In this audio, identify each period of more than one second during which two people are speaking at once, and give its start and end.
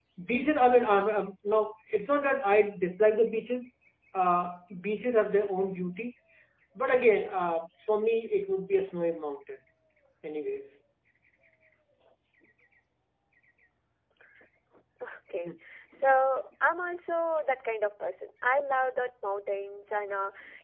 none

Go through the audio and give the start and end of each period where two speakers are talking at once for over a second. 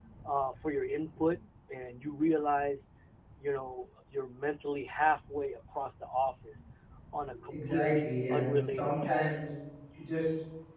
7.5-9.4

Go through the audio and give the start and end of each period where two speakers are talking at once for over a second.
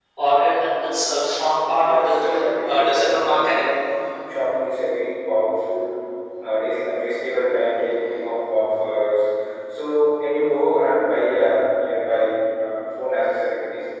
1.8-3.7

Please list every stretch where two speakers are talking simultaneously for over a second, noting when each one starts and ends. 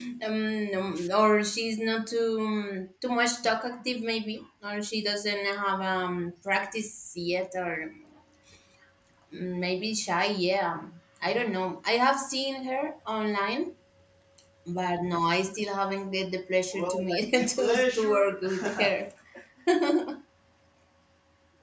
16.7-18.9

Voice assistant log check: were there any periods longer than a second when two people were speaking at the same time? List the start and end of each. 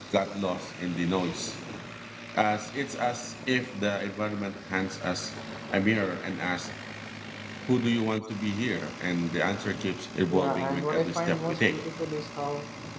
10.3-11.8

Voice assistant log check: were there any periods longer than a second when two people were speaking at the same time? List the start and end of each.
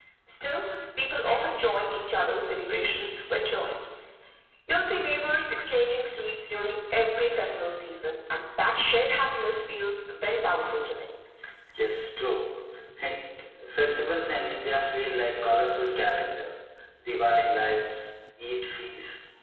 none

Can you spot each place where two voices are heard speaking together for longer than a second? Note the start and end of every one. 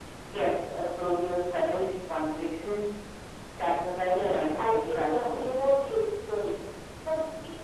4.0-5.8

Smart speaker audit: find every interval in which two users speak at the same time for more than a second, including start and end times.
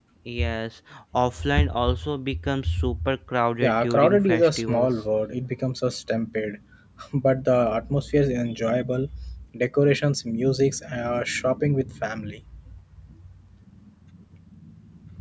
3.6-4.9

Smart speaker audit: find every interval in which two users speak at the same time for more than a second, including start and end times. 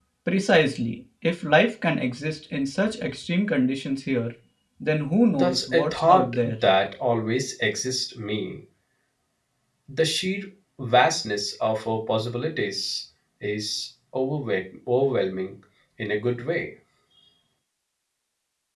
5.3-6.6

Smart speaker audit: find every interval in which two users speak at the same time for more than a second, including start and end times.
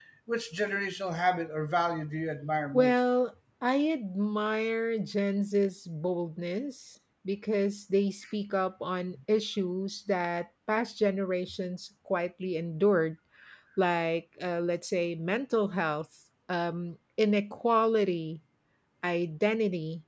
none

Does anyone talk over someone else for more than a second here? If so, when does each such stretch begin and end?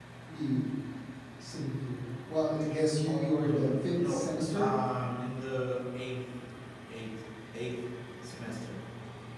3.0-4.7

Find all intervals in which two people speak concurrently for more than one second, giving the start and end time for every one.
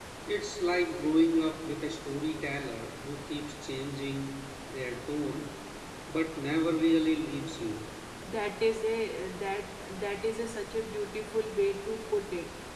none

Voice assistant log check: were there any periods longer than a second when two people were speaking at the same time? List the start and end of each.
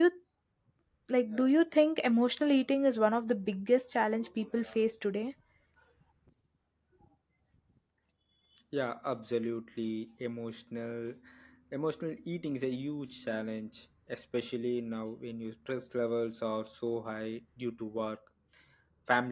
none

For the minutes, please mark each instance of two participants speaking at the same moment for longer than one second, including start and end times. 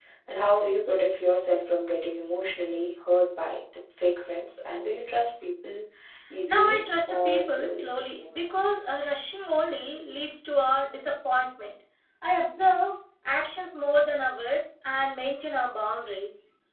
6.5-7.9

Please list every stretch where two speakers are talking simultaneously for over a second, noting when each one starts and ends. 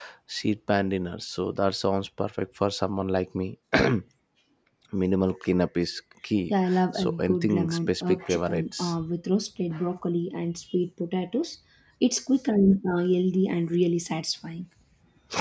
6.5-8.9

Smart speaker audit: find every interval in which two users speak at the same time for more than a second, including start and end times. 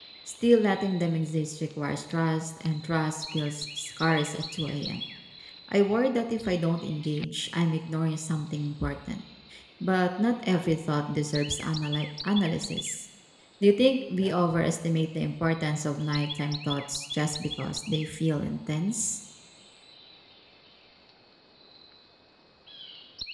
none

